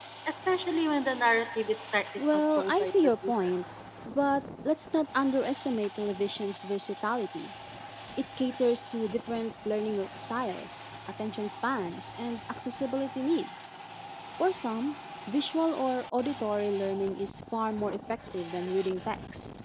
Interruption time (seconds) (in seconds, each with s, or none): 2.2 s